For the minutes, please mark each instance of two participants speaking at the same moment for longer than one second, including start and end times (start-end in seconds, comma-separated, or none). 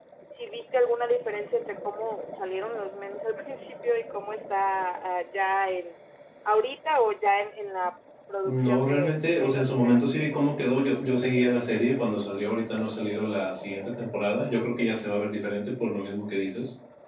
8.4-10.1